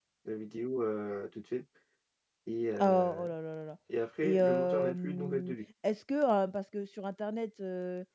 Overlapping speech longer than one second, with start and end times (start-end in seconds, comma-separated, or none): 4.2-5.5